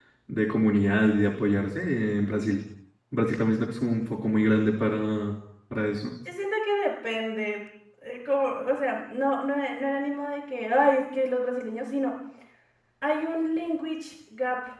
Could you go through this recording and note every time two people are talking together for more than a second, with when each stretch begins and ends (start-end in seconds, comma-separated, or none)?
none